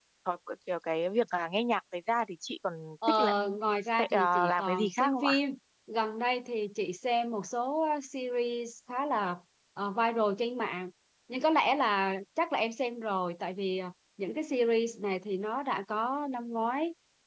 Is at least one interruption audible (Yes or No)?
Yes